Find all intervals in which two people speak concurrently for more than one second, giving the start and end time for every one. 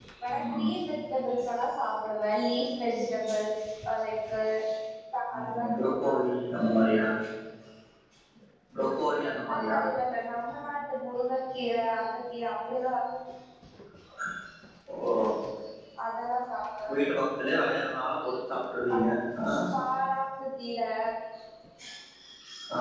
none

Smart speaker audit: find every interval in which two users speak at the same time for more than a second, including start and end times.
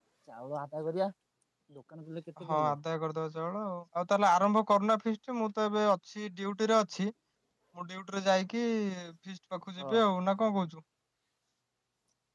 none

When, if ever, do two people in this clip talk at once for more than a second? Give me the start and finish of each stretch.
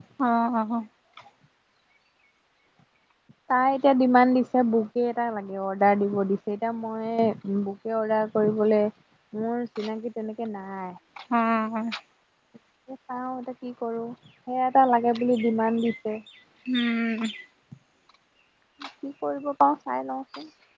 none

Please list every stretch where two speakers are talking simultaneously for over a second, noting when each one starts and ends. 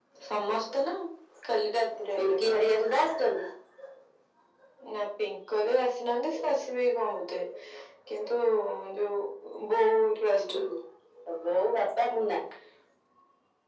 none

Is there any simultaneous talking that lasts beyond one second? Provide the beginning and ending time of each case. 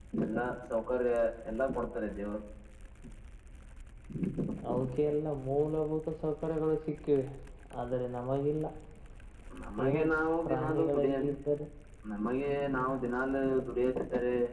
9.9-11.2

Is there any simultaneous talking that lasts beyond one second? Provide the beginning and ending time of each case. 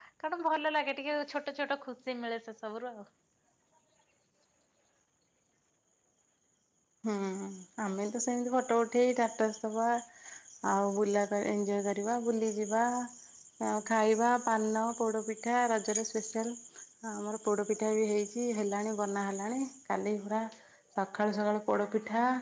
none

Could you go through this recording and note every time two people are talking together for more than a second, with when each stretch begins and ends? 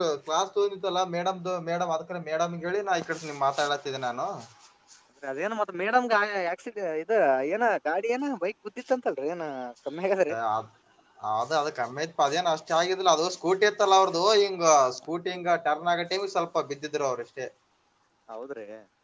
none

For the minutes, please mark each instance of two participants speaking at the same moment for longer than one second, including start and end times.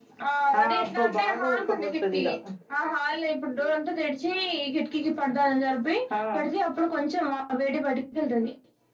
0.6-2.2

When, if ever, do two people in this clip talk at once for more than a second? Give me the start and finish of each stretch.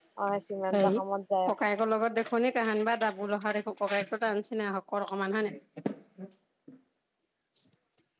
none

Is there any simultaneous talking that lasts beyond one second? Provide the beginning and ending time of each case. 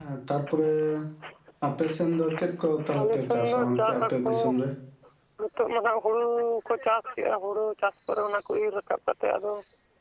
3.0-4.3

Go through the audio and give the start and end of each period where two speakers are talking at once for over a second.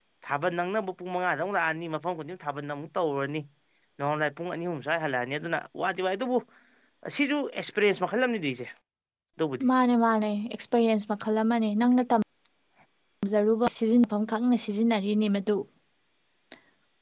none

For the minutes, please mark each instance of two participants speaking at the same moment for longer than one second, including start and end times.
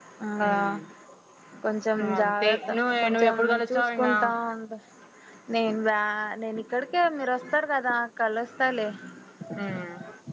2.2-4.3

